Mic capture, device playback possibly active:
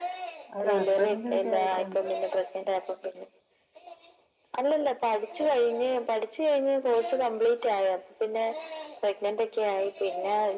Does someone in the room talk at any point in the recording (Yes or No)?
Yes